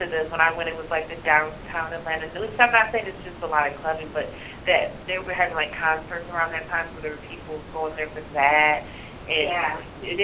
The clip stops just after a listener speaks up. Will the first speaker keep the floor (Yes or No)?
Yes